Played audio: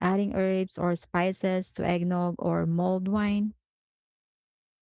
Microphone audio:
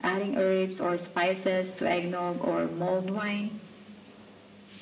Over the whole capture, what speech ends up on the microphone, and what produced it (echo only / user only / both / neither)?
echo only